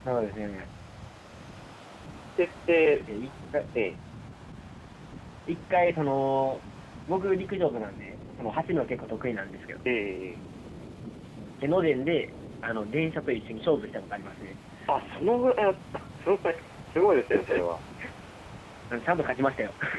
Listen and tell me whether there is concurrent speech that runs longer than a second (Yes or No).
No